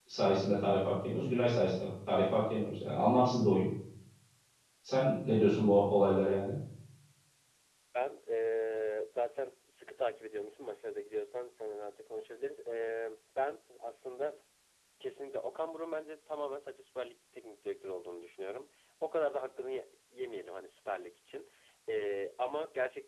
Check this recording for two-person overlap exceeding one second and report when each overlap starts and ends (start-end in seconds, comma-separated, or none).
none